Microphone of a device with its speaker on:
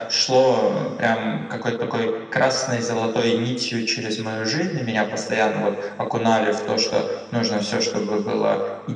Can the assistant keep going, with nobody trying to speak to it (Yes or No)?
Yes